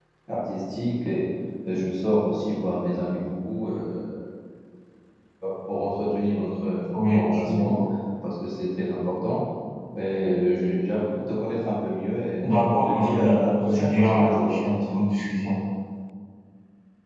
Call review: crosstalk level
present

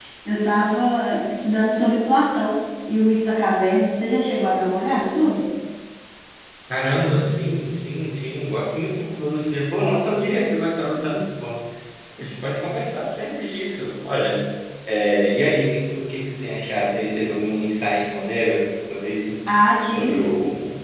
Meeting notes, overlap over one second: none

